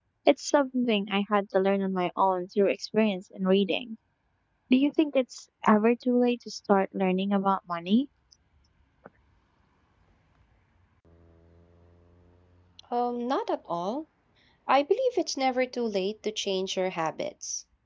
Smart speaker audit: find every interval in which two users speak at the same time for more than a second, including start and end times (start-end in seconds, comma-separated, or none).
none